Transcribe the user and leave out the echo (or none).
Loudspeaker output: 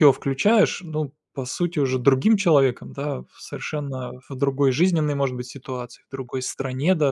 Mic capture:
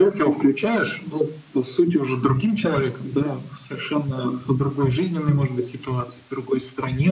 none